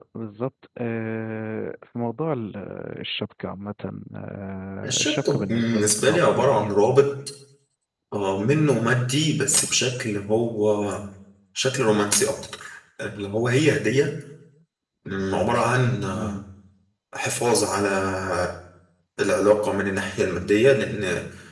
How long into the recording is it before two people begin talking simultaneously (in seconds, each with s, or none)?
4.8 s